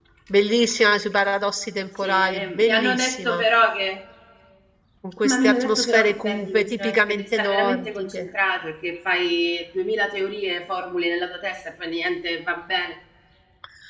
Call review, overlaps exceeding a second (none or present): present